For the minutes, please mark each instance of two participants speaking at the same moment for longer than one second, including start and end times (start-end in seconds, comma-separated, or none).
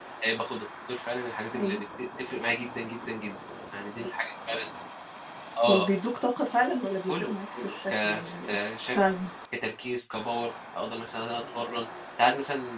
7.1-8.6